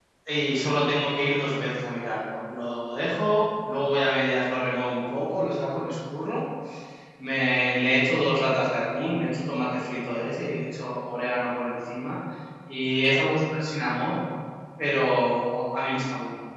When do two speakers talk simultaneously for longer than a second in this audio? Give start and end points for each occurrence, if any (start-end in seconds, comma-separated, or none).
none